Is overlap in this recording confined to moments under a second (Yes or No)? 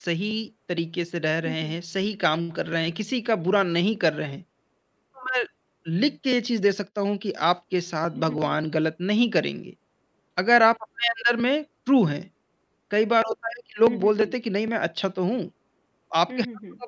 Yes